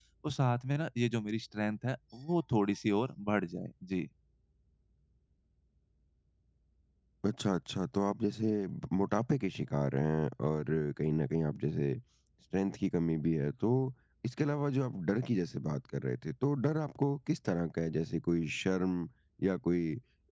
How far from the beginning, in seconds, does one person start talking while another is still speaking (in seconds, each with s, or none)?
none